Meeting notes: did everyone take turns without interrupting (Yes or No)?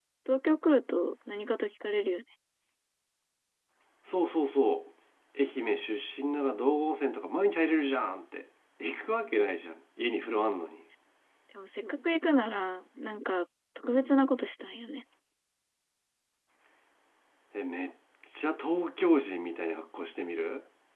Yes